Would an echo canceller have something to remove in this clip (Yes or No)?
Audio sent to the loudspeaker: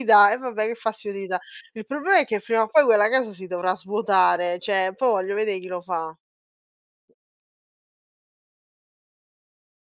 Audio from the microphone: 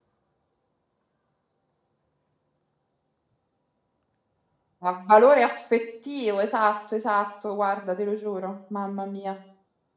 No